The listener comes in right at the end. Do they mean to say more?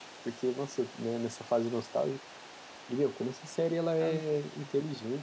No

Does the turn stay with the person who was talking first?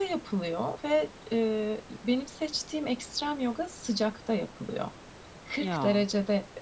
Yes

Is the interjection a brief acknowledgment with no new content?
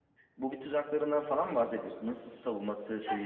No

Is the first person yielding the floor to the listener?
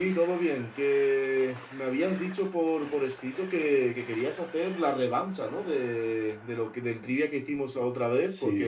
Yes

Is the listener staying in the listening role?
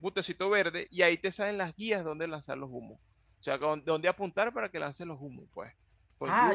No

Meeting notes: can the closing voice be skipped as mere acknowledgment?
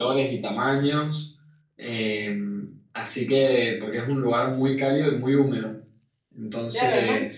No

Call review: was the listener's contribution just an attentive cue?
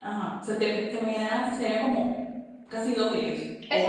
No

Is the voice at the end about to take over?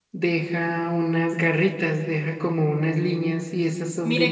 Yes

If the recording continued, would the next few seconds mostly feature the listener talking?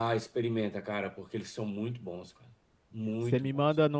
Yes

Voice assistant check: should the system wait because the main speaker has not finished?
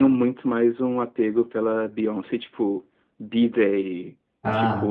Yes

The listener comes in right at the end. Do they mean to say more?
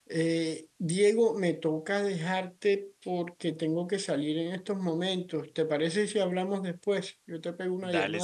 Yes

